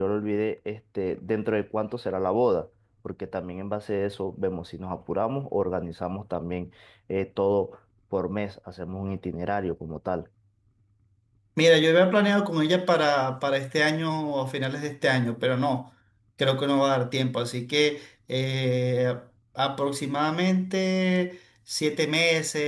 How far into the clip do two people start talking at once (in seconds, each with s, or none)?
none